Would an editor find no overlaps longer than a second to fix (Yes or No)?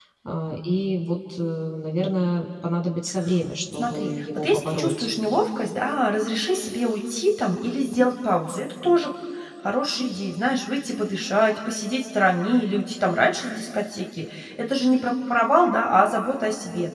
No